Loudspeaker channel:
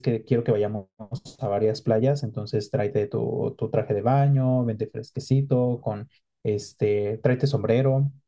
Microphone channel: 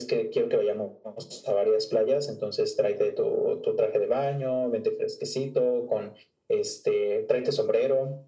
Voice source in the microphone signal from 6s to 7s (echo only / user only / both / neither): echo only